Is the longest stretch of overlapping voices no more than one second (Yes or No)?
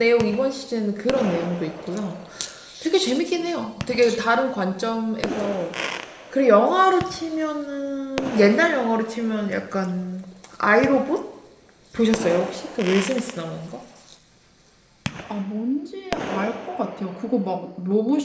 Yes